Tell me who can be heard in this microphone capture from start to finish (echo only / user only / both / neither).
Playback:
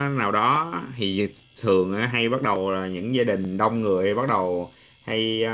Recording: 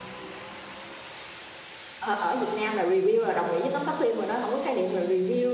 user only